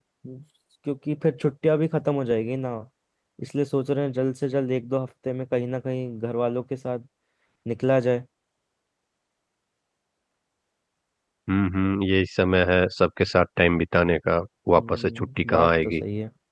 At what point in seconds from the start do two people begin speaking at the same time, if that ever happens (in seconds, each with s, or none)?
14.8 s